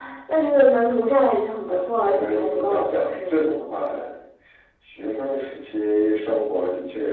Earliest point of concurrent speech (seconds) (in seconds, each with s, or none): 2.0 s